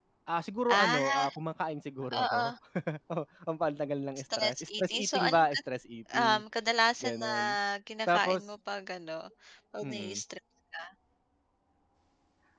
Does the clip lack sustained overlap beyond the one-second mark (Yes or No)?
No